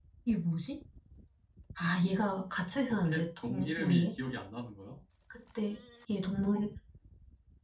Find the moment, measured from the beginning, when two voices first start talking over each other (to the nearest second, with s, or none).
3 s